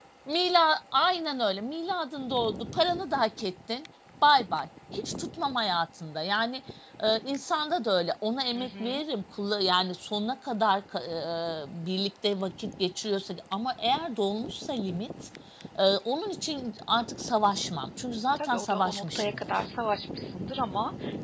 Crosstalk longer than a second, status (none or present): present